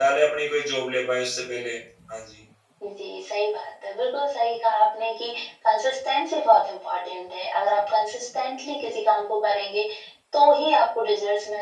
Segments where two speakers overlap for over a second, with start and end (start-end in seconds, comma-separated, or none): none